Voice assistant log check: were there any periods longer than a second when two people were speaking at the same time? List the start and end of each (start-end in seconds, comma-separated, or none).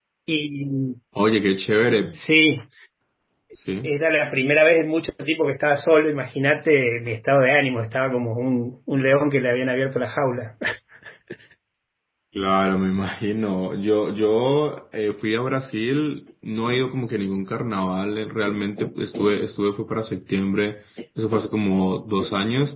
none